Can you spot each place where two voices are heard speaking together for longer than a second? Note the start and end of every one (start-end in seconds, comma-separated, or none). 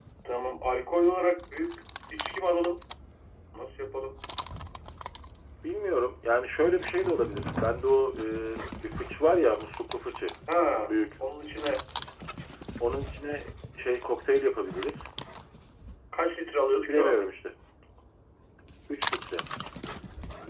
none